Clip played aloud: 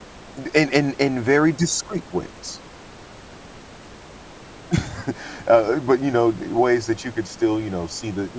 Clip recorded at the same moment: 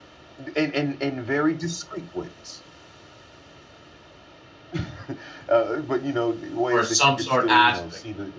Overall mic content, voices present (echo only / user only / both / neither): both